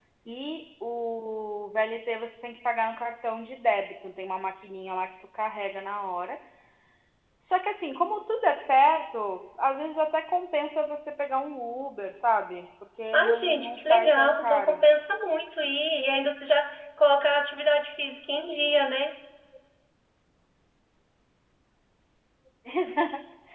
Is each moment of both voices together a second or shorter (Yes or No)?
No